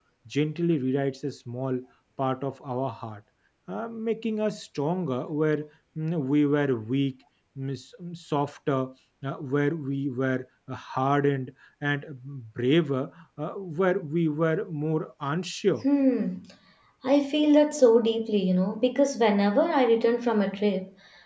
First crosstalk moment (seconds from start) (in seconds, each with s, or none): none